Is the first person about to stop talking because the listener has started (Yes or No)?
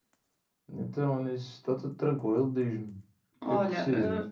Yes